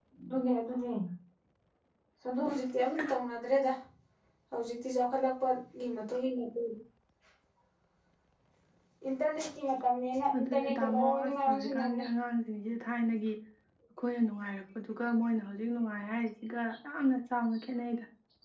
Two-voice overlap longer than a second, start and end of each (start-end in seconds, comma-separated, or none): 10.3-12.0